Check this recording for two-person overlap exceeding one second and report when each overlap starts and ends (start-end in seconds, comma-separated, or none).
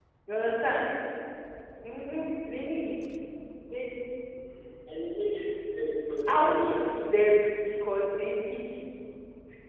none